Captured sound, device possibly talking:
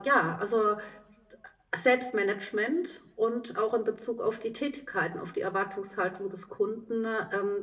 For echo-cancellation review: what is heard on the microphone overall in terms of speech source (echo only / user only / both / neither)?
echo only